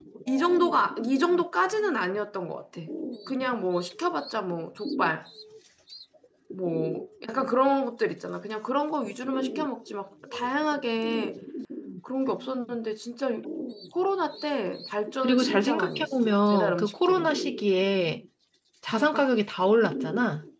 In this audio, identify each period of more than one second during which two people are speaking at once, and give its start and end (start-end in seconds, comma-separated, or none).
15.2-17.3